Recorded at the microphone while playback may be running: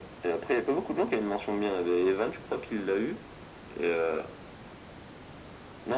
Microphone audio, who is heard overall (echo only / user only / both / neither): echo only